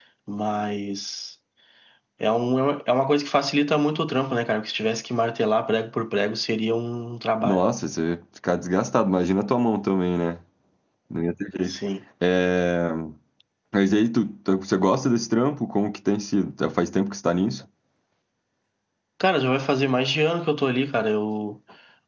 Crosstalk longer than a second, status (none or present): none